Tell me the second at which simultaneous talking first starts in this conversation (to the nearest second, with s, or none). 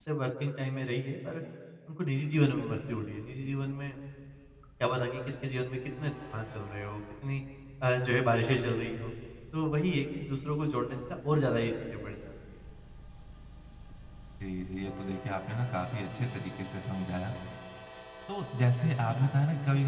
none